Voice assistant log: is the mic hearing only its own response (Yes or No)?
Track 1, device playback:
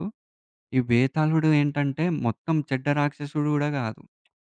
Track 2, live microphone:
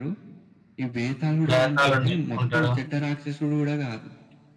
No